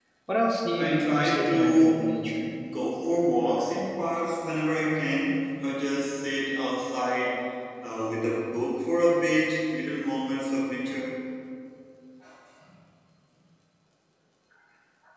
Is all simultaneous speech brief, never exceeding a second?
No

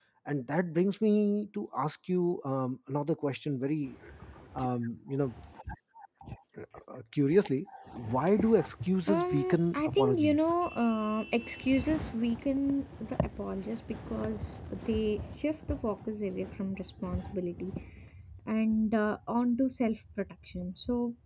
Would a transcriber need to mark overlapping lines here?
Yes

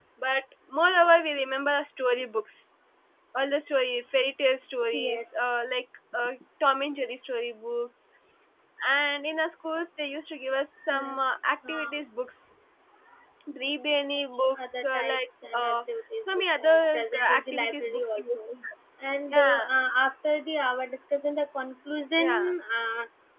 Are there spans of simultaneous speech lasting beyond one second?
Yes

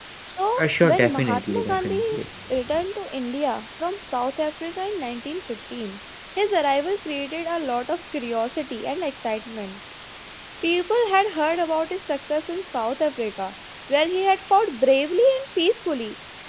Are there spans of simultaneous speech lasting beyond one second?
Yes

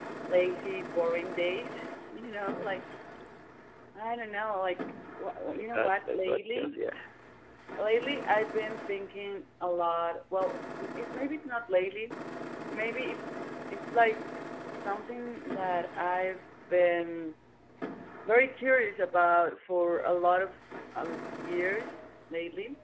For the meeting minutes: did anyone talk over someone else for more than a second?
Yes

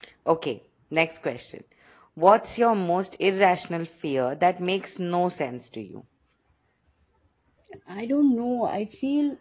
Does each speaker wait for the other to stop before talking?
Yes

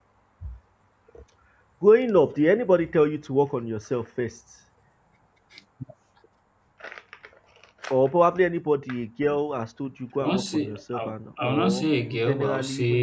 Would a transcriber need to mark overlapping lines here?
Yes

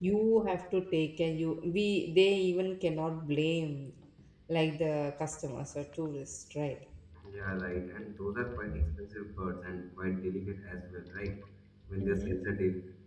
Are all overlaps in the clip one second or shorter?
Yes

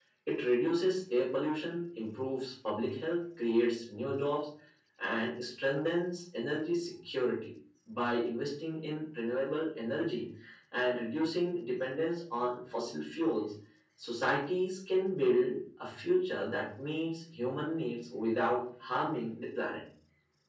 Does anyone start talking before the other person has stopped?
No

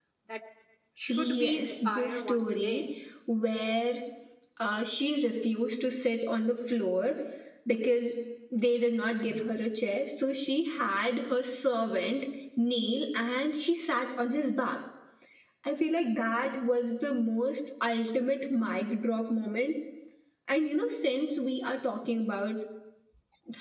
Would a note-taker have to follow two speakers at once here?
Yes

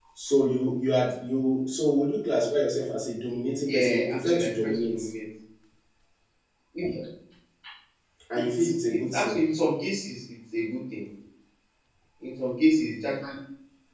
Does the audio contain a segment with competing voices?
Yes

